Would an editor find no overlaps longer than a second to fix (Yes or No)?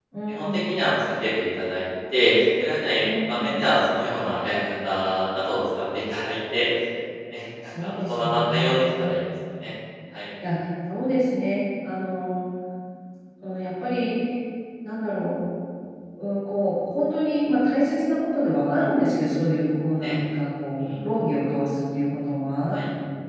No